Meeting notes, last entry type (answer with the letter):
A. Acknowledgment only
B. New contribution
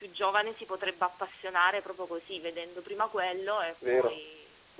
B